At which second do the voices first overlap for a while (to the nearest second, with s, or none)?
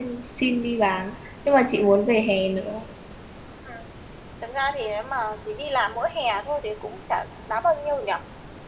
none